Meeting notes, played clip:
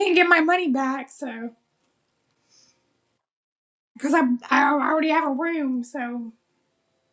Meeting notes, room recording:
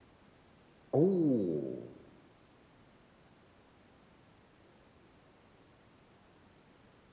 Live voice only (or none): Oh.